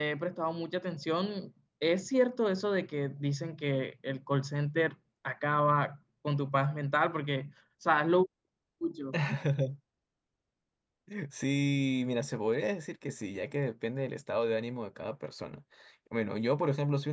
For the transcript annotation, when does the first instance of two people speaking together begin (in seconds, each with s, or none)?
none